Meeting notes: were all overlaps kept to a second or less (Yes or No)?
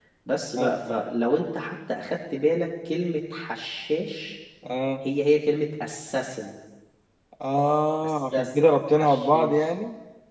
No